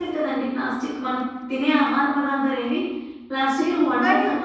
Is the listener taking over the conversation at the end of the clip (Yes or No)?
Yes